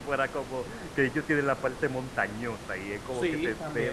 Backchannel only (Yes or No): No